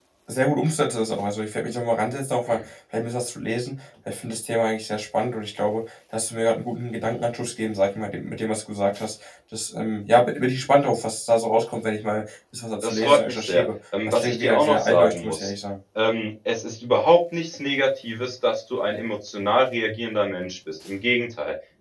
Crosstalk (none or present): present